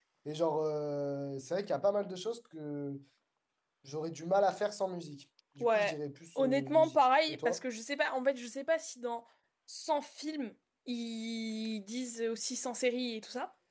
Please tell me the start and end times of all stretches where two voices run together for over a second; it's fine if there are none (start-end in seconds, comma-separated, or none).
6.3-7.6